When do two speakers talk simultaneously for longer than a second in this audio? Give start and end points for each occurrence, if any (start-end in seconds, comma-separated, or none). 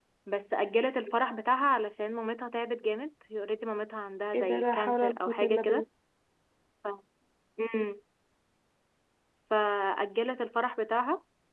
4.3-5.8